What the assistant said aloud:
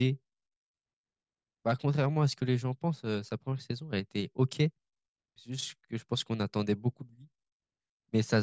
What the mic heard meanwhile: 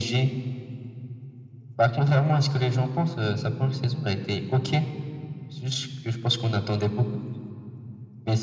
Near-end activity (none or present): none